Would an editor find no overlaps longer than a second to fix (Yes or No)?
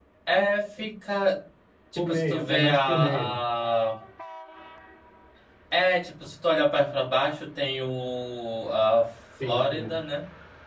No